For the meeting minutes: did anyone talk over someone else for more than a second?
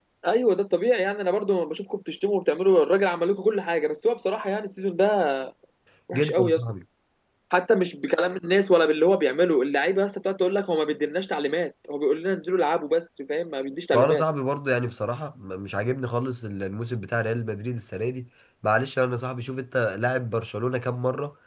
No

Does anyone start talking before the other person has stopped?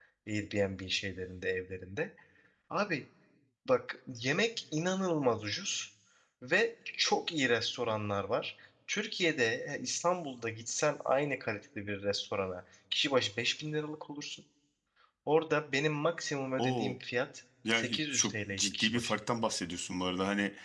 Yes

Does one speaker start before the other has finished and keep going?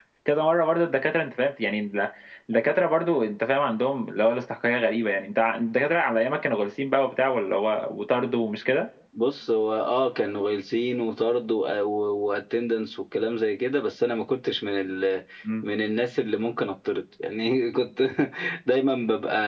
No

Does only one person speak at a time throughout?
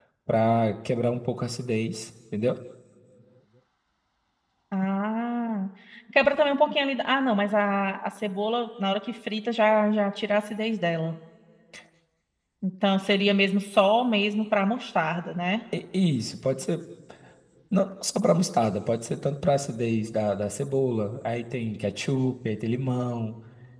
Yes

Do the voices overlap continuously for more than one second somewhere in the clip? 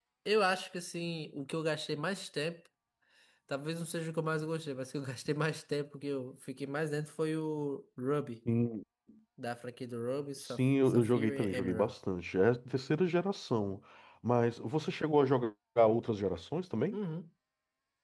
Yes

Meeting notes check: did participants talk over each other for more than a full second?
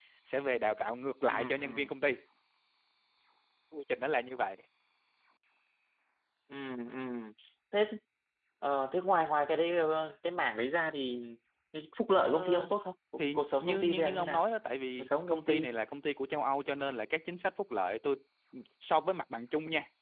Yes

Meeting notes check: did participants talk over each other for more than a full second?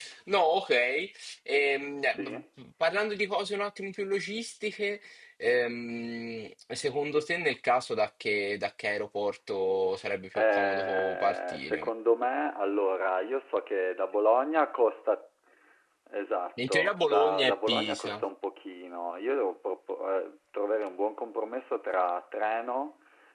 Yes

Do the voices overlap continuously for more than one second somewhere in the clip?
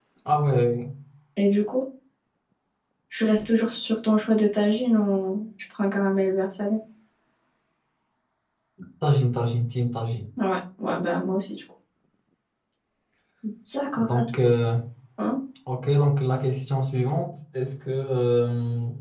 No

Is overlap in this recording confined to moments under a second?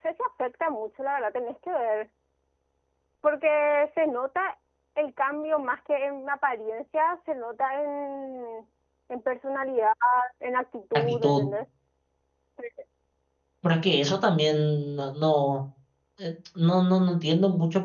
Yes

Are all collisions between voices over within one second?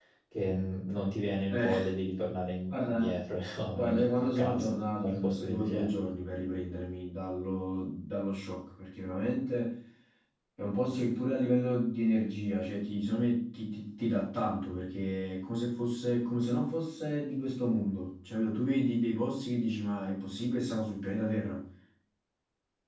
No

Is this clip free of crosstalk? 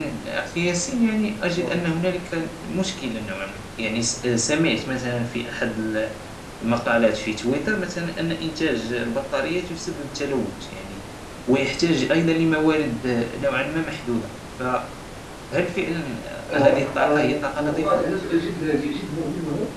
No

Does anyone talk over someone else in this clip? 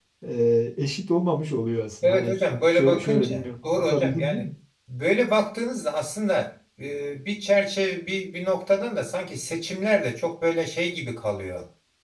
Yes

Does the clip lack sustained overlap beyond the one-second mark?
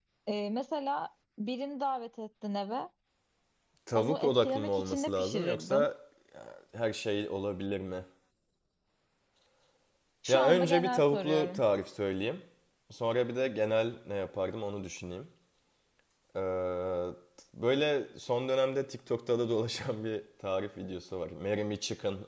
No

